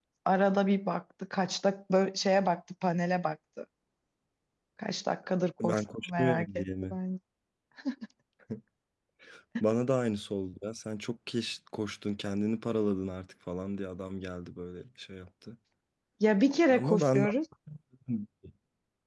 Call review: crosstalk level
present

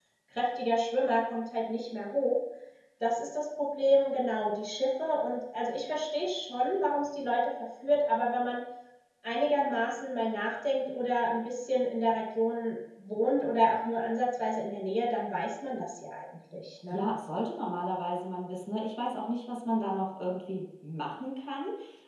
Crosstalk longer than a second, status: none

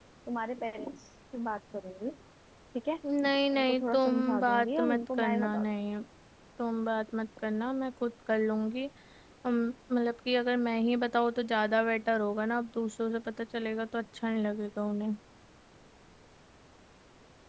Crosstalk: present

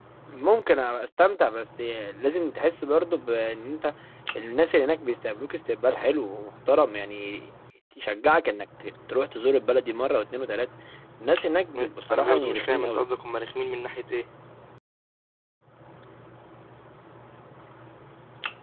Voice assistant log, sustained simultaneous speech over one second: present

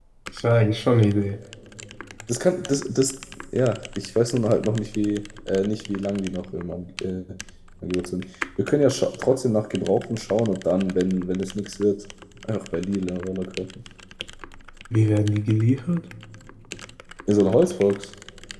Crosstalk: none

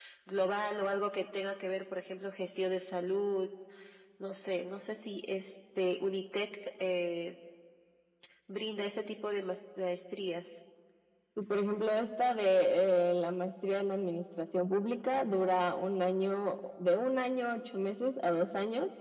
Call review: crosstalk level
none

